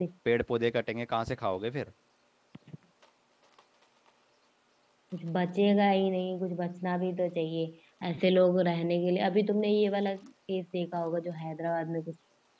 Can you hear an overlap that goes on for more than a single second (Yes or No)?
No